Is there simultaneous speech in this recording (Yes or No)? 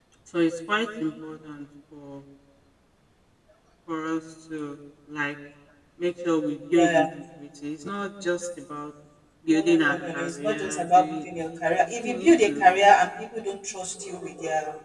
Yes